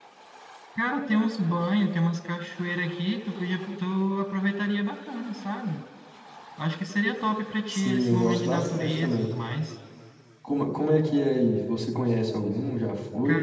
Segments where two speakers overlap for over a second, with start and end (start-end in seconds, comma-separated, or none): 7.7-9.3